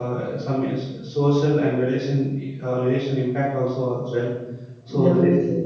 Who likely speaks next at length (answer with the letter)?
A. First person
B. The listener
A